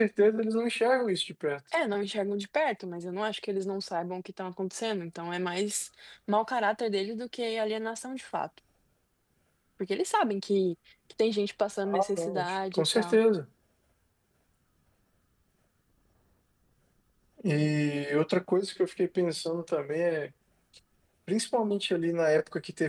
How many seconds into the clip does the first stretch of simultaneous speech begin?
11.8 s

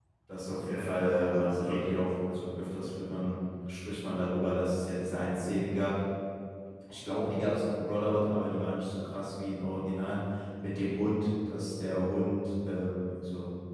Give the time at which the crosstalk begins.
0.6 s

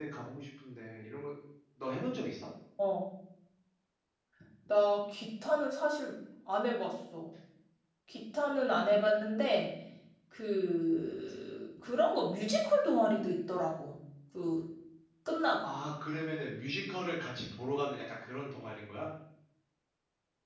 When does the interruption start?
none

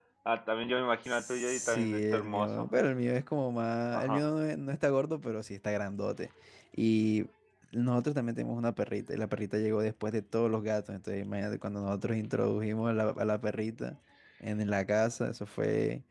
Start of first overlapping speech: 1.1 s

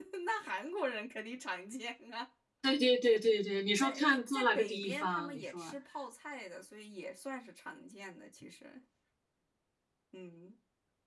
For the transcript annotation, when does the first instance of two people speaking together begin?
3.8 s

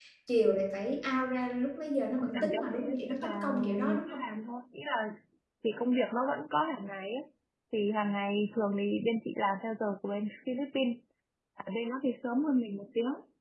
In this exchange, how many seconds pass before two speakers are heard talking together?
2.2 s

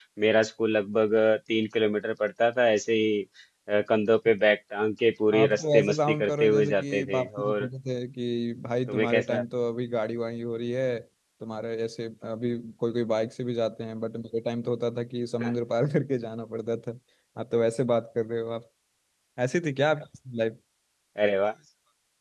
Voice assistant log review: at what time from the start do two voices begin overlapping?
5.3 s

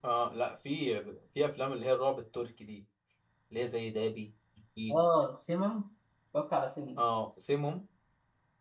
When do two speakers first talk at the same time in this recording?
none

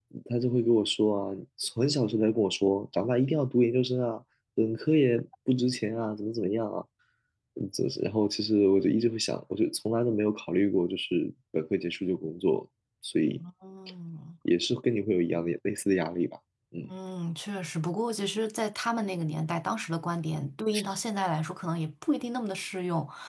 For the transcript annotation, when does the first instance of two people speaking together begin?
none

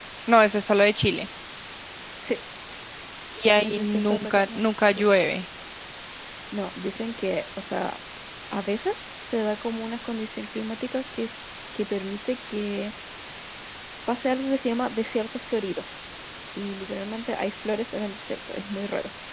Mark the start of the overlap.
3.6 s

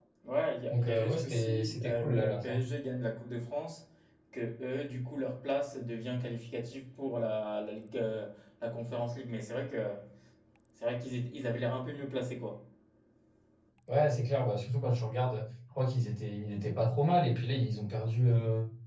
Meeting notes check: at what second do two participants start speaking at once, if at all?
0.7 s

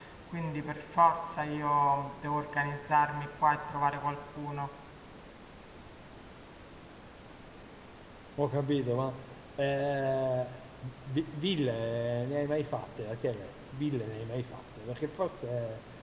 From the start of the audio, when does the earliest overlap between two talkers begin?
none

